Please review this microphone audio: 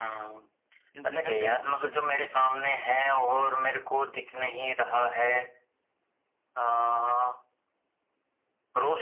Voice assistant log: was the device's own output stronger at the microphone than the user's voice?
Yes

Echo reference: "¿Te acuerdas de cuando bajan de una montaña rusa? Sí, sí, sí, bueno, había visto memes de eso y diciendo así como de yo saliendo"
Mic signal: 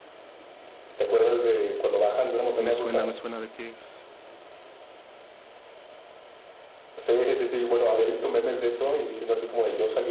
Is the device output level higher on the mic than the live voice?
Yes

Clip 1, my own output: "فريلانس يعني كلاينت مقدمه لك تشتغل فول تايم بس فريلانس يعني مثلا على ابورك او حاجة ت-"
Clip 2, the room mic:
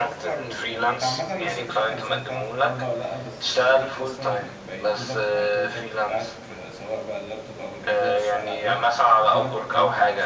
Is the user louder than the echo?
No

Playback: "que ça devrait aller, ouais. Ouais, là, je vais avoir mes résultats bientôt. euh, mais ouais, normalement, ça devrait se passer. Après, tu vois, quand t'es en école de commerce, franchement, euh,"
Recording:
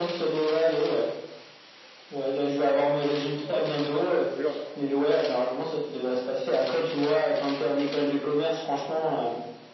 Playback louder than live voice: Yes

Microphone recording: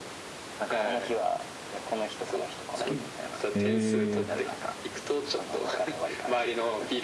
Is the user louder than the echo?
Yes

